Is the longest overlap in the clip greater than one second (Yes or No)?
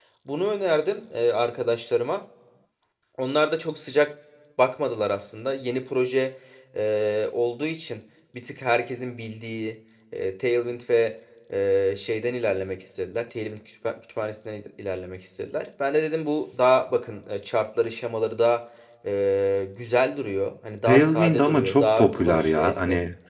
Yes